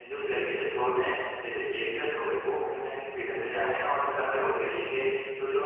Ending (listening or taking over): listening